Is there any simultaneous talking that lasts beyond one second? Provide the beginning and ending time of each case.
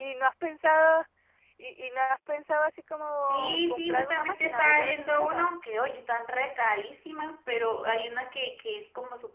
3.3-5.5

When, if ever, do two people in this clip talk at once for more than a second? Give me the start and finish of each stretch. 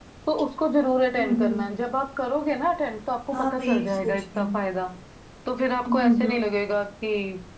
3.3-4.6

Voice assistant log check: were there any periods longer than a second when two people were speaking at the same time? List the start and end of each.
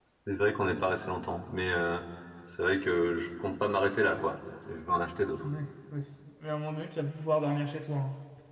none

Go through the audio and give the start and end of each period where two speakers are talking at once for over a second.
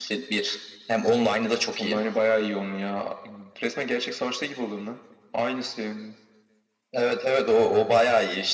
none

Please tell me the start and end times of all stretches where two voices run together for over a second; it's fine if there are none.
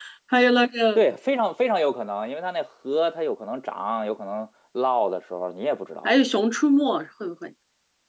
none

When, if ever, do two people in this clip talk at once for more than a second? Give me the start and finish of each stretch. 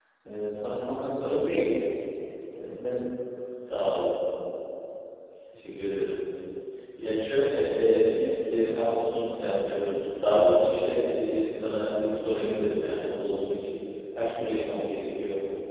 none

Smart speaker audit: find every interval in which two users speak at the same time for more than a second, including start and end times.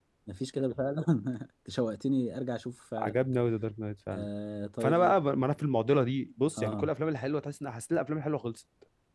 none

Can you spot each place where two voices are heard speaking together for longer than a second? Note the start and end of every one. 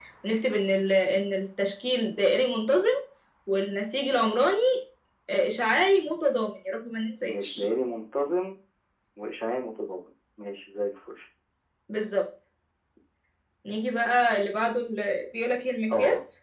none

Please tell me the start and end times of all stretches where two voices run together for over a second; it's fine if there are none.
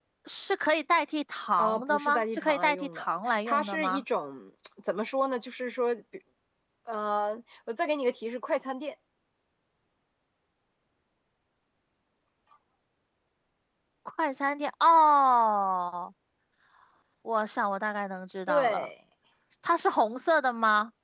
1.6-4.0

